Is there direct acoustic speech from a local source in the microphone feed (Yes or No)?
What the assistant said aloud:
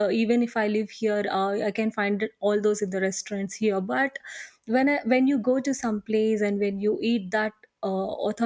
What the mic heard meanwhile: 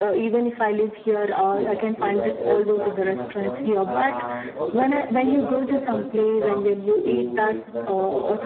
Yes